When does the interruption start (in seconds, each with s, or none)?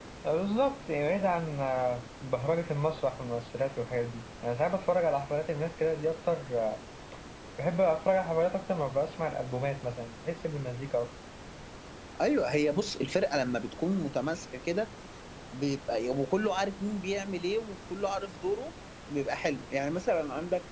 none